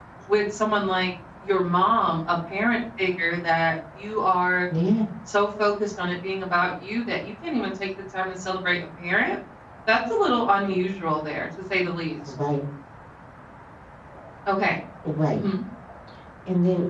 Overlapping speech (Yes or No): No